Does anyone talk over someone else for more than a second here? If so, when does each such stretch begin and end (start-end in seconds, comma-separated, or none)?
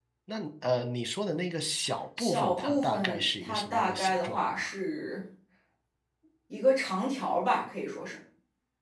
2.2-4.6